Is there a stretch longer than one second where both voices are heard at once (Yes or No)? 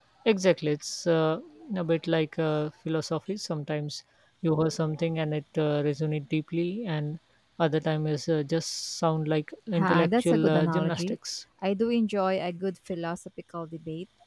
Yes